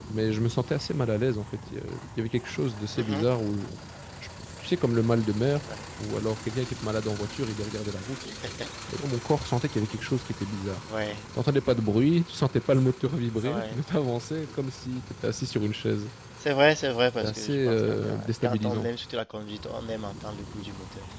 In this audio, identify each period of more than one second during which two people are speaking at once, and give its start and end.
17.2-18.9

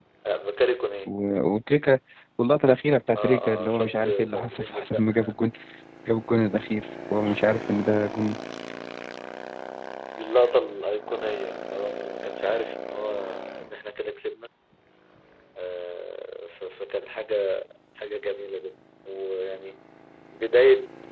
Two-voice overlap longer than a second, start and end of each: 3.1-5.0

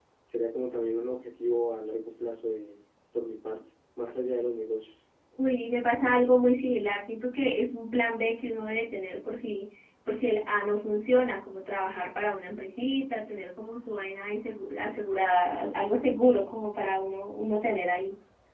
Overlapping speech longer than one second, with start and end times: none

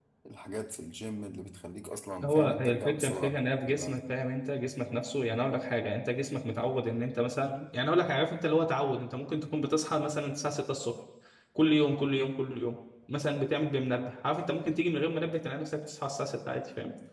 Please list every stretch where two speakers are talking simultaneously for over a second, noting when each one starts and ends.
2.2-4.0

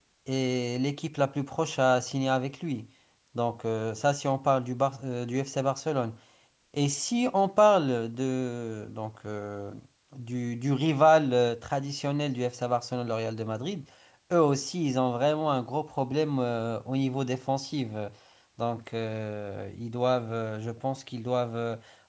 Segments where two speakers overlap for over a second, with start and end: none

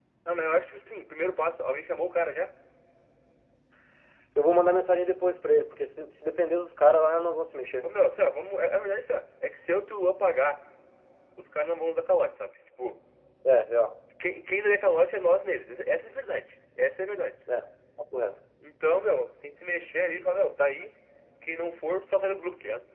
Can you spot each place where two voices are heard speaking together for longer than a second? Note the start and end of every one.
none

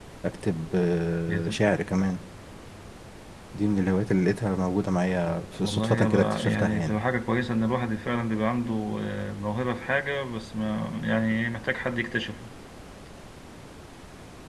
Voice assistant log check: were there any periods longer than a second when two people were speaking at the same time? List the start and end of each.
5.6-7.0

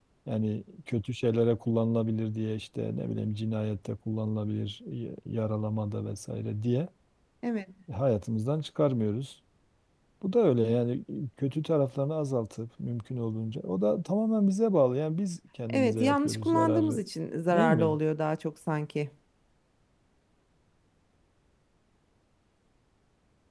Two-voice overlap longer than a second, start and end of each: 15.7-17.0

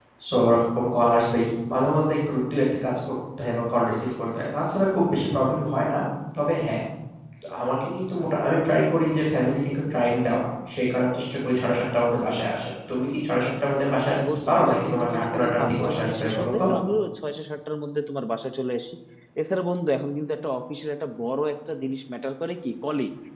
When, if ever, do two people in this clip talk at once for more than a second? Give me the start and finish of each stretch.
14.1-16.6

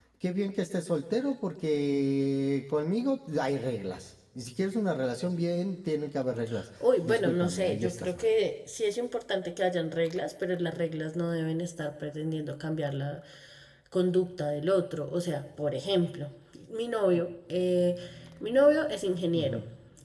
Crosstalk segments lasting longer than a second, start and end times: 7.0-8.3

